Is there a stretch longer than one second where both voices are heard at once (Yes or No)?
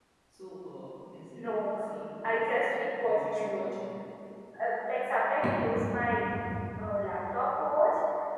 Yes